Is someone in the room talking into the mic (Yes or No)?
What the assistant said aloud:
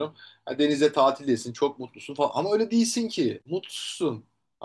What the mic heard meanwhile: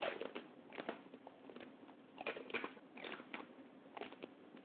No